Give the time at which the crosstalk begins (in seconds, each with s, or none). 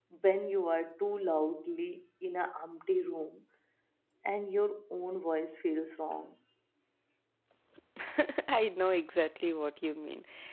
none